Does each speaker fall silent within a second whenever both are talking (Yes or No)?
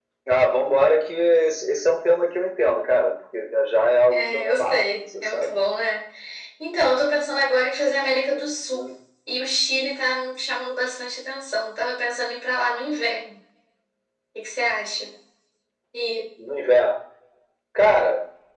No